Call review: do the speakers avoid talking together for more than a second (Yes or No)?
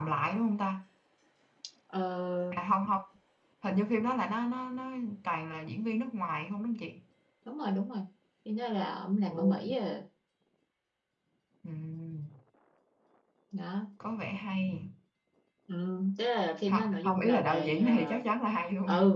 No